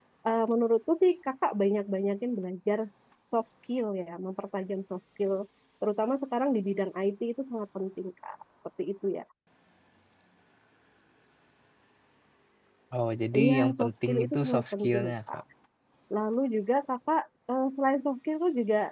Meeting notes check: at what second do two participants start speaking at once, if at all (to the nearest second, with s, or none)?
13 s